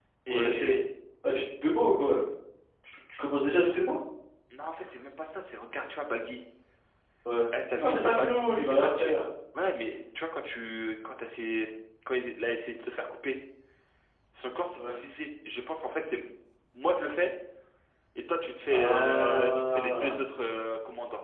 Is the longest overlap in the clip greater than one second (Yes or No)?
Yes